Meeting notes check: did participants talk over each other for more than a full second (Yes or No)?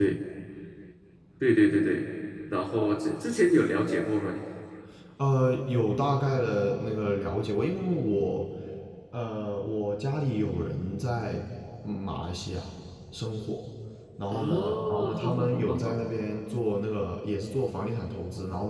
Yes